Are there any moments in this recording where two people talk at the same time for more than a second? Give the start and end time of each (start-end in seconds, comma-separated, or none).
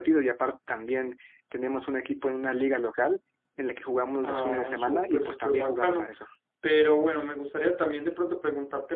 4.2-6.1